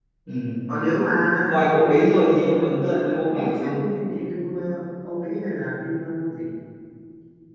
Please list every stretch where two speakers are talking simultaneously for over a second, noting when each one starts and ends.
2.5-3.8

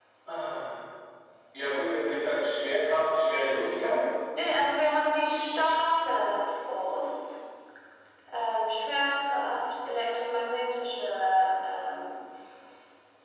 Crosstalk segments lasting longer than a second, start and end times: none

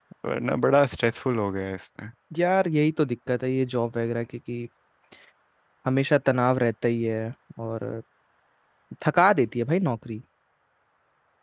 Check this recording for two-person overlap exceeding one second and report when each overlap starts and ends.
none

